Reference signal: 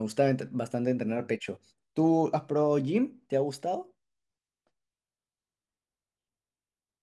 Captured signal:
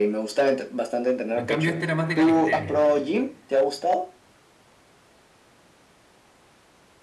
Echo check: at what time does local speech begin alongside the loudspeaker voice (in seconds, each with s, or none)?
1.3 s